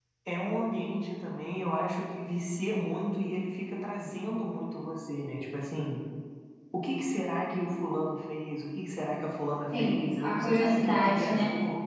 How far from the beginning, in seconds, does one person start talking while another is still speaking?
9.7 s

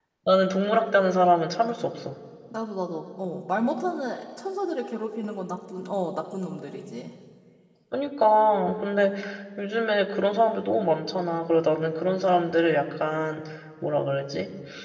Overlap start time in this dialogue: none

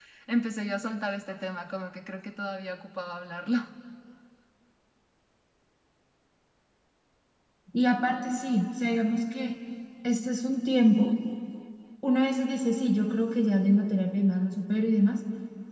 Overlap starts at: none

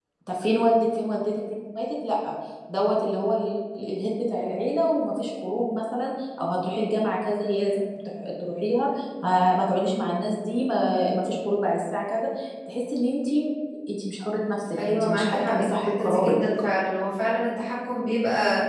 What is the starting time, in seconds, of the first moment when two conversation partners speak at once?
14.8 s

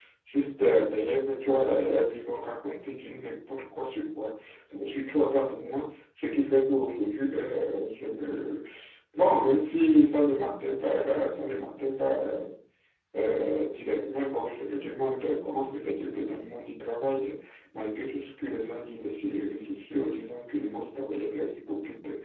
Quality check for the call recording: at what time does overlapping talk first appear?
none

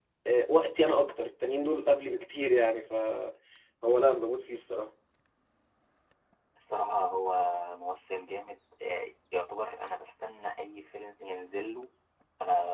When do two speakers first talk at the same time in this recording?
none

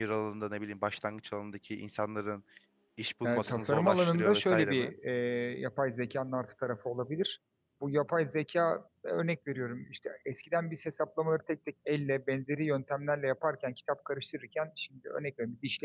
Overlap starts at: 3.2 s

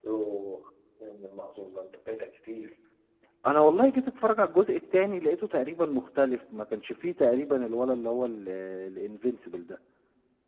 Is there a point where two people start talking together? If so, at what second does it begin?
none

